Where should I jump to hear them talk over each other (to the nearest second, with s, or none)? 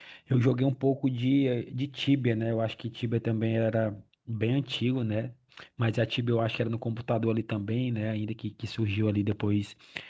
none